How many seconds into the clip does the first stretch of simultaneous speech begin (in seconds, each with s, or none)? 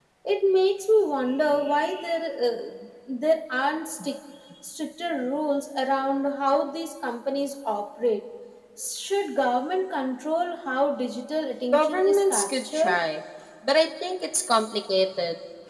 11.7 s